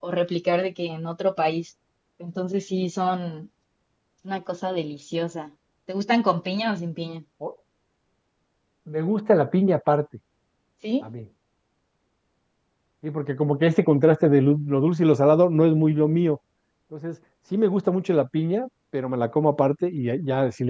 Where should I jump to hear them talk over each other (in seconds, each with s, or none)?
none